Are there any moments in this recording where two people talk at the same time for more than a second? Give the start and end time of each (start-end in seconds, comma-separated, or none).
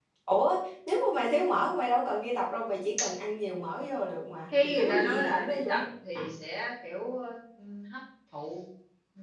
4.6-5.8